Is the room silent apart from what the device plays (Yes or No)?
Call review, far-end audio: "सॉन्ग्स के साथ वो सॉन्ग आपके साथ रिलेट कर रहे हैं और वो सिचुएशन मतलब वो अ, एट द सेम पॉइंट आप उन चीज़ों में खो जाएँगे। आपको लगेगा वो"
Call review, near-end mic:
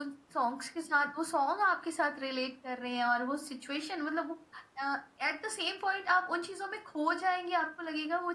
Yes